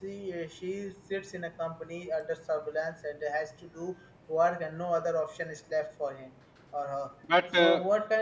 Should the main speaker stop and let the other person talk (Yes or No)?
No